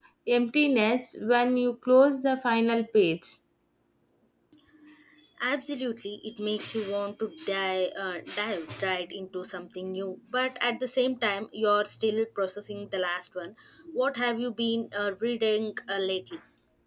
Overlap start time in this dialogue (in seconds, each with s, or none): none